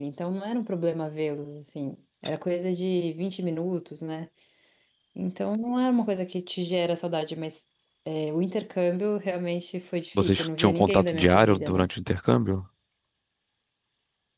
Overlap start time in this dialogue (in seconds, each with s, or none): 10.2 s